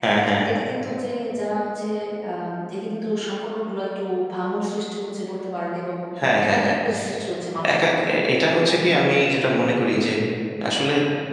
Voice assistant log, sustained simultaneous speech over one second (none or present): none